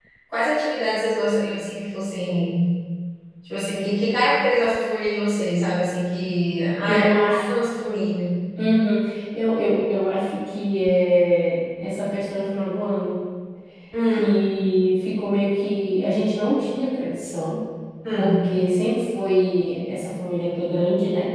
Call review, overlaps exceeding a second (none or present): none